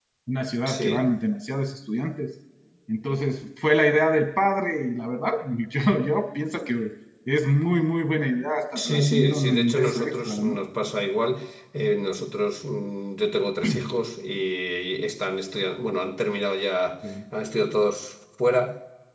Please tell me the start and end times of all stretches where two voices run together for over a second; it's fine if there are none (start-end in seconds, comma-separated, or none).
8.8-10.6